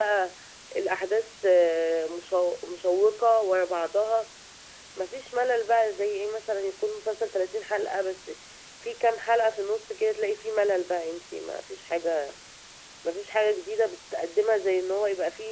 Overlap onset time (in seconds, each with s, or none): none